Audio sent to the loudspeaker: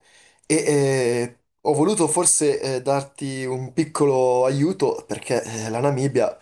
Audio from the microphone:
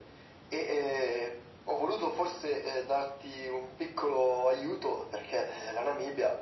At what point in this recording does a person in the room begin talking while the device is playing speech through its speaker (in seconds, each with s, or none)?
none